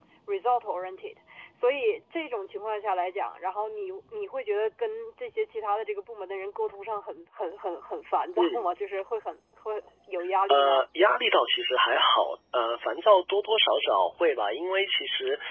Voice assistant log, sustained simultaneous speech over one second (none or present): none